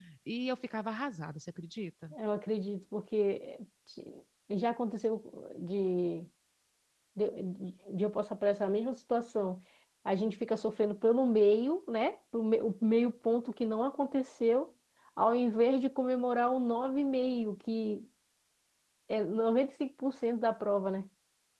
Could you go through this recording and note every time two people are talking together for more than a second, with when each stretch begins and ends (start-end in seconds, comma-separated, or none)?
none